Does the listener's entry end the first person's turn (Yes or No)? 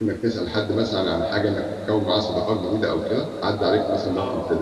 Yes